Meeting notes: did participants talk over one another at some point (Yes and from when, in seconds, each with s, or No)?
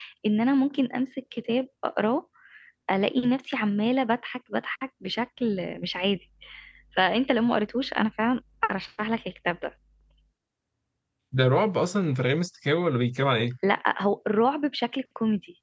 No